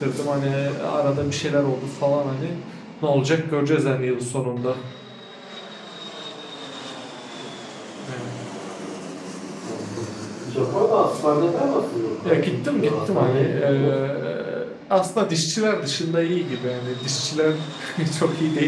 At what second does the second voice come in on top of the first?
12.2 s

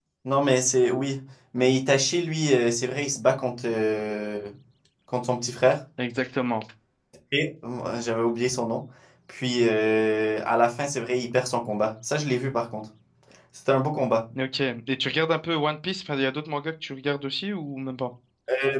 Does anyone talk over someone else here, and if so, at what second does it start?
none

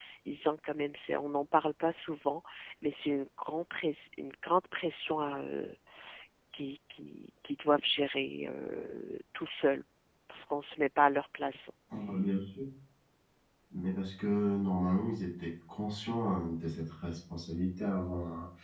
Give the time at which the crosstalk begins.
none

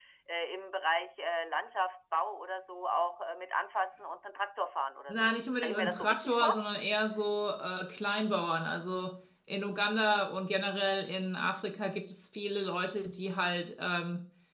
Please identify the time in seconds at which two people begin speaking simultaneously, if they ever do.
5.1 s

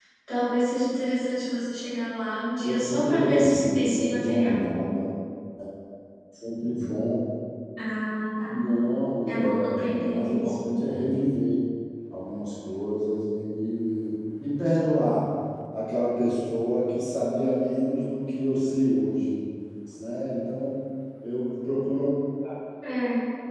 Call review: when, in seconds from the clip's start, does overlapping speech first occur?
2.6 s

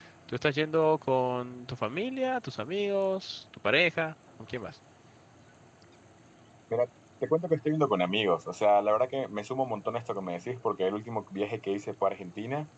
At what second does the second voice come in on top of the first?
none

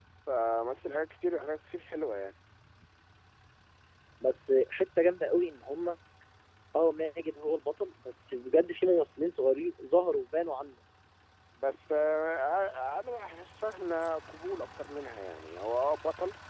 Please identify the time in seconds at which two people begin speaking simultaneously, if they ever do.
none

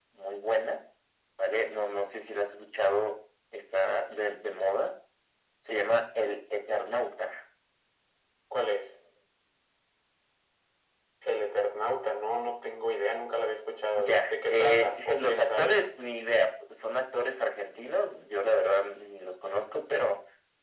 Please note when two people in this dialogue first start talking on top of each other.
13.9 s

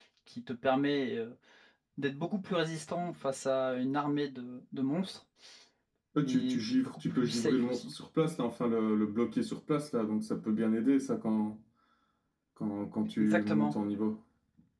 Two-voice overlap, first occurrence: 6.2 s

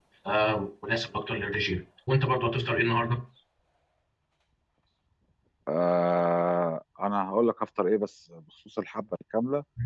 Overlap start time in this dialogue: none

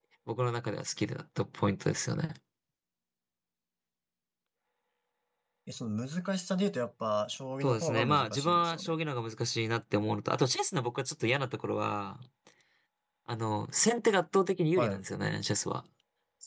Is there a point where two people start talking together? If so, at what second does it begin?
7.6 s

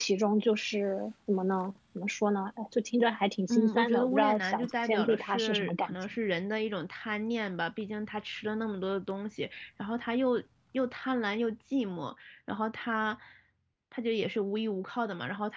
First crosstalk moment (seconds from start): 3.5 s

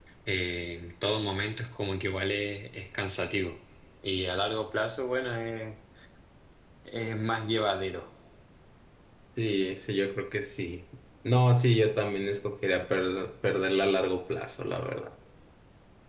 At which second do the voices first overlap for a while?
none

